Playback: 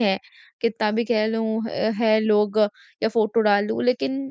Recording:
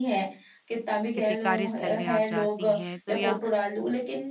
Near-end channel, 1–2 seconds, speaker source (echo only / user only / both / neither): both